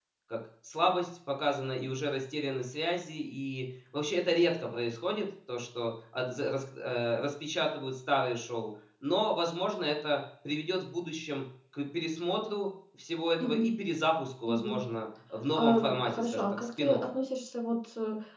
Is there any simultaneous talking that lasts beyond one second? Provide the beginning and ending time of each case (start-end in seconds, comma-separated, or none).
15.6-16.9